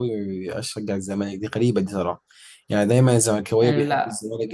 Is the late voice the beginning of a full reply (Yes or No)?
No